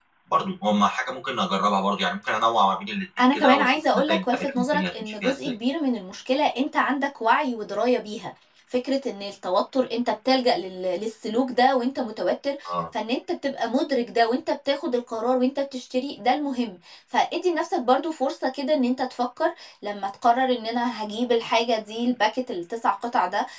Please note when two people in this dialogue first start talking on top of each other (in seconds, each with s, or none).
3.2 s